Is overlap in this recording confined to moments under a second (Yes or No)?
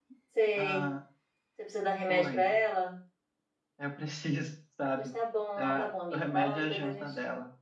No